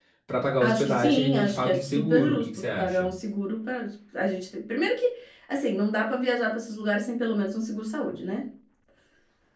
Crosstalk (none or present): present